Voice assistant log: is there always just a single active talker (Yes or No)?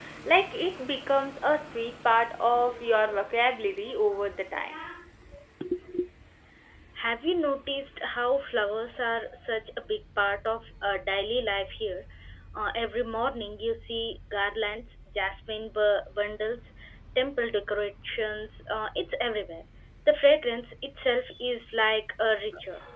Yes